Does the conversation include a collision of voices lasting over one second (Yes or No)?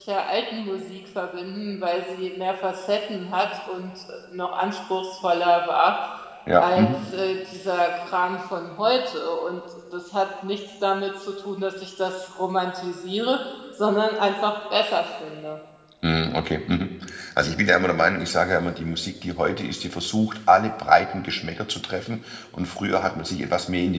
No